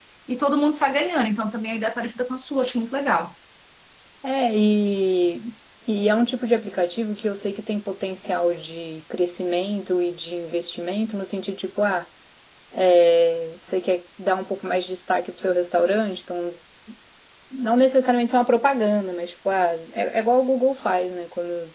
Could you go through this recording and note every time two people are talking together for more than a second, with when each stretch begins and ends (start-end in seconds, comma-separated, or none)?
none